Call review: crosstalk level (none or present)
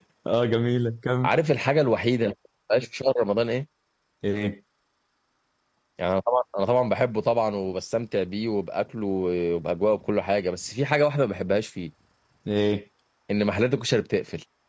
none